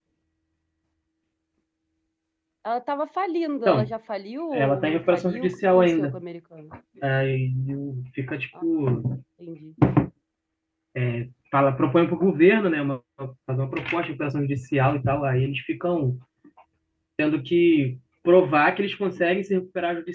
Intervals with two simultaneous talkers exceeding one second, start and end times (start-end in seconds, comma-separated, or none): 4.5-6.2